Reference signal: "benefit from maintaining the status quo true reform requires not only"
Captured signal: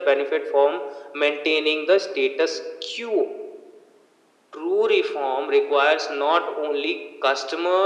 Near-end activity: none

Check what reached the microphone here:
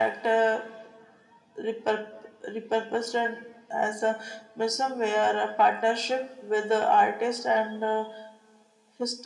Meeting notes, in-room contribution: none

